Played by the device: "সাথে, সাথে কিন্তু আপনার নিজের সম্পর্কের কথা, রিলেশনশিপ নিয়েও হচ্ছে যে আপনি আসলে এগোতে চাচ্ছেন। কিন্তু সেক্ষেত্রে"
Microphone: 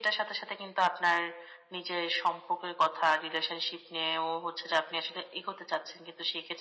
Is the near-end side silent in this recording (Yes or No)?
Yes